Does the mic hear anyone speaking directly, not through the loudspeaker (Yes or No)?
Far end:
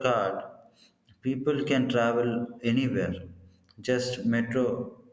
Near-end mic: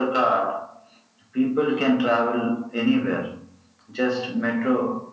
No